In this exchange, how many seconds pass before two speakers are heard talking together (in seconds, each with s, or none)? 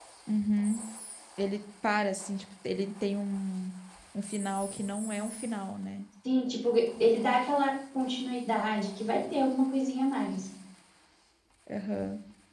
none